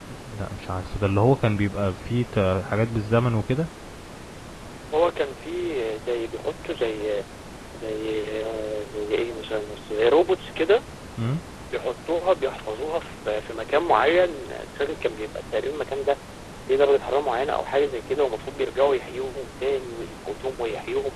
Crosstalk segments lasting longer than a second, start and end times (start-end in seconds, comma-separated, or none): none